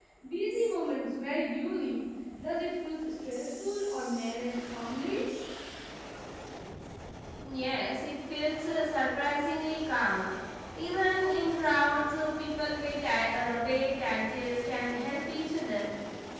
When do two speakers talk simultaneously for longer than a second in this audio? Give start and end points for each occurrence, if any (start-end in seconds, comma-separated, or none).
none